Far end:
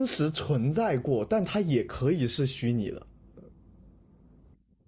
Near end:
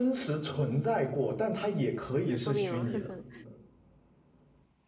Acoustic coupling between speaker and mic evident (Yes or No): Yes